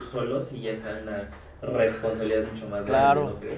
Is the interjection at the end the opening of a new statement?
Yes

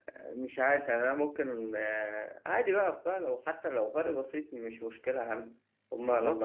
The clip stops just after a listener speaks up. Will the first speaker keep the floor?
No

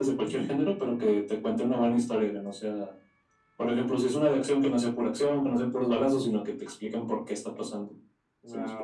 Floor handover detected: Yes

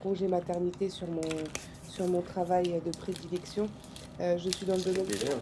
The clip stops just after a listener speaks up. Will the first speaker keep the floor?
Yes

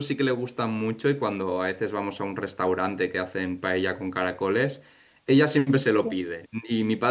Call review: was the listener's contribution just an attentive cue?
Yes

